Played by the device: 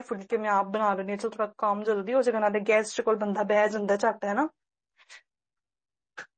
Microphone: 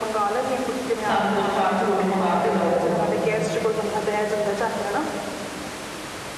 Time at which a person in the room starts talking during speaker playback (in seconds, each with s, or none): 1.1 s